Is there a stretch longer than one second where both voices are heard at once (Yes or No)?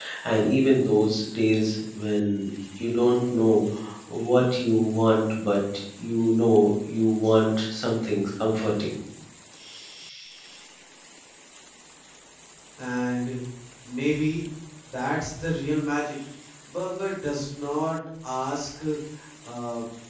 No